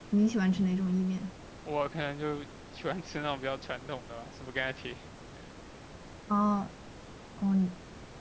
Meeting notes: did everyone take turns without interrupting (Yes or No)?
Yes